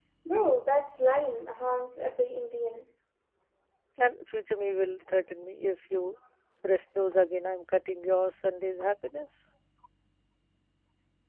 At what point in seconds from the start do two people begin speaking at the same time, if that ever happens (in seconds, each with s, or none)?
none